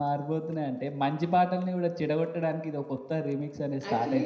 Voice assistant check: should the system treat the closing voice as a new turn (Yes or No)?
Yes